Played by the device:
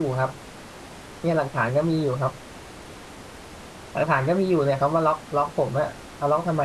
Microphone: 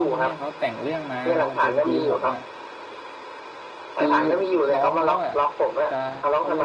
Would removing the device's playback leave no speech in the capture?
No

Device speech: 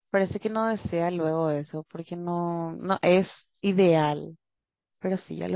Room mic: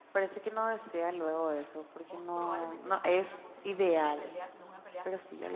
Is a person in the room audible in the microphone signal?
Yes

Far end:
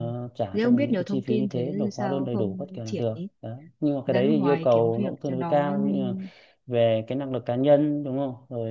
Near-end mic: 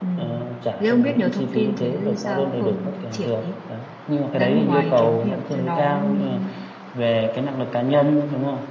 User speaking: No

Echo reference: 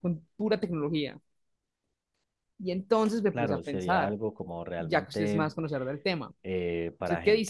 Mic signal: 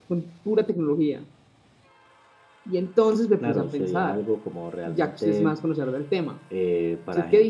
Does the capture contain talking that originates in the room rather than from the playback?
No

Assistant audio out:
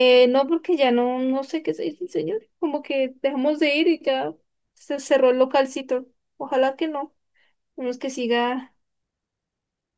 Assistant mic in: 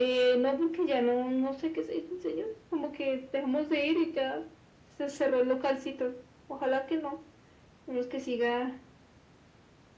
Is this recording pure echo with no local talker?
Yes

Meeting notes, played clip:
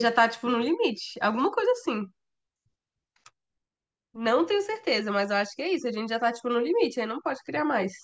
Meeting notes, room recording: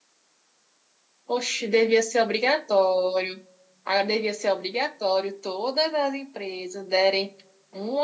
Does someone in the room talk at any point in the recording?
Yes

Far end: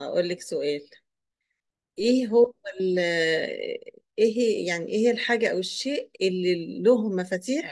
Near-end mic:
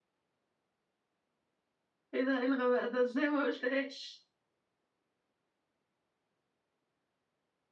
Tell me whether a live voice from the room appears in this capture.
Yes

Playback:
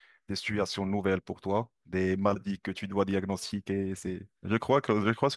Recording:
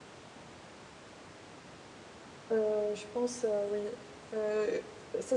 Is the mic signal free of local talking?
No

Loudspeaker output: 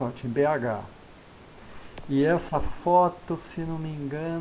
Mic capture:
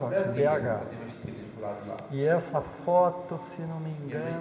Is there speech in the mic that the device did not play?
Yes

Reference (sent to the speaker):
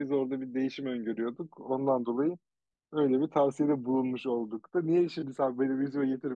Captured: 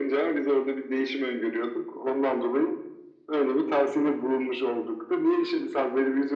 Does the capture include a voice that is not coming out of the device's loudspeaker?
No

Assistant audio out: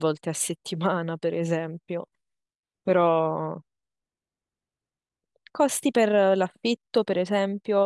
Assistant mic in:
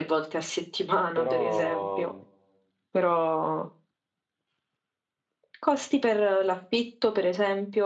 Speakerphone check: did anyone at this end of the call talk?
Yes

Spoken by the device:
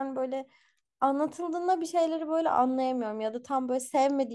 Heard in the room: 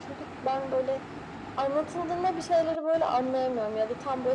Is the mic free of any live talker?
Yes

